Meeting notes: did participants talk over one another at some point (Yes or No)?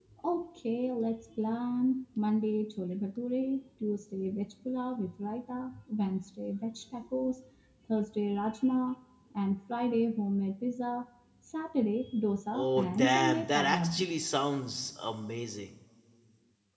Yes